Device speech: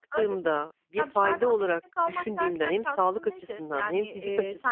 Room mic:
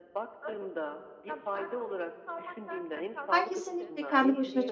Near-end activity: present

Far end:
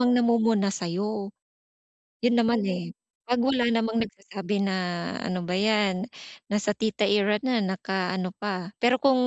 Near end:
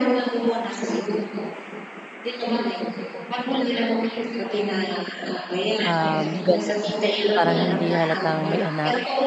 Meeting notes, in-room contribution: present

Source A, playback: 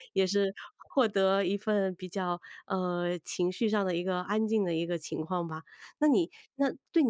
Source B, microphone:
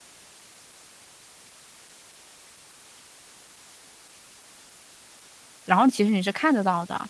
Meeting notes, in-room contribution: present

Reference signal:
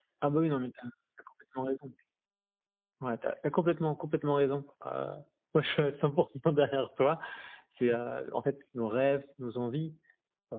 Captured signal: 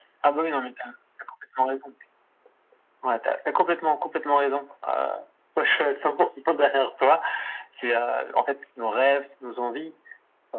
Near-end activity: none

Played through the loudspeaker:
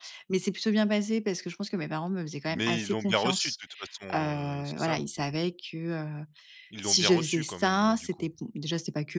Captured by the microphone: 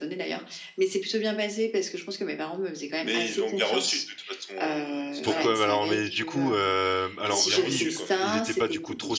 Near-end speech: present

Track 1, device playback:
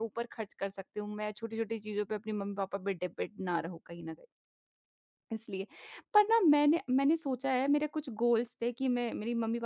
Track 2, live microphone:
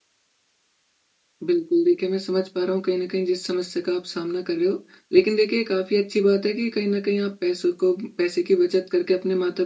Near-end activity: present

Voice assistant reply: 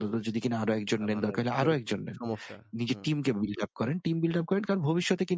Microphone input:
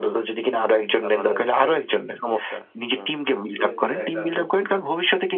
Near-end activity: present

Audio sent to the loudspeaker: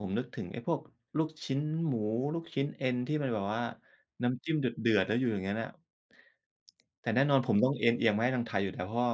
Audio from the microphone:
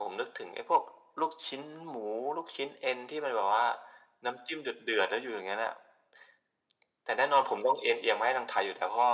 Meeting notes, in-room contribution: none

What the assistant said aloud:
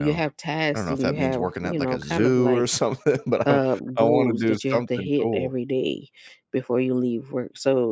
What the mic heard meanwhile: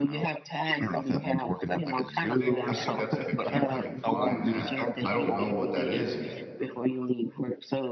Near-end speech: present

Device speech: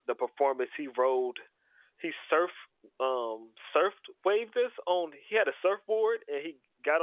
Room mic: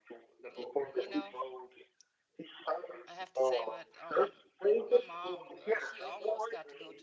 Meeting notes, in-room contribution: present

